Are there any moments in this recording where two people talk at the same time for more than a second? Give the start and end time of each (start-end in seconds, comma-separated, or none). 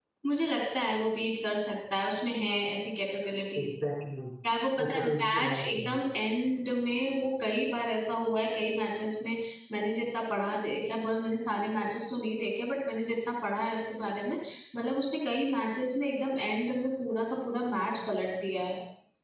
4.8-6.0